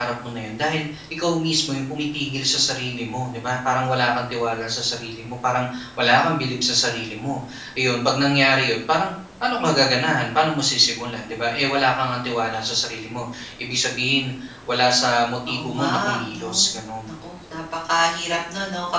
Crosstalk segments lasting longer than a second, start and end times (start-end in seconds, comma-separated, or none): 15.5-16.7